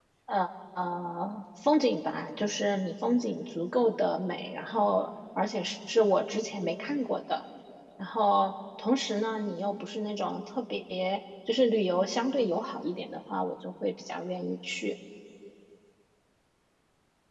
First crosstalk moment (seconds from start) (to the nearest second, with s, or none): none